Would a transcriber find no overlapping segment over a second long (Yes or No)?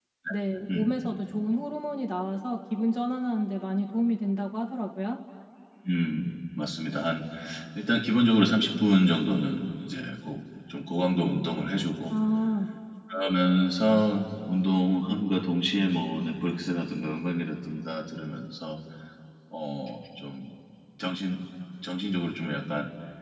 Yes